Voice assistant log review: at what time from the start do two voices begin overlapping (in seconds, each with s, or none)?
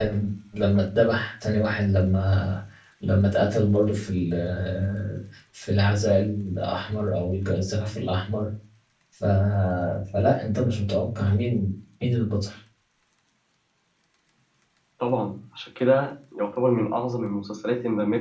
none